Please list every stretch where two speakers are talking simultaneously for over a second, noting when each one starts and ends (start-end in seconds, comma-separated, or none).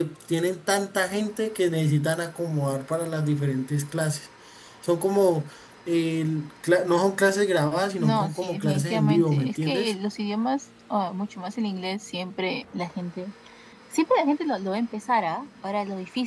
8.0-9.9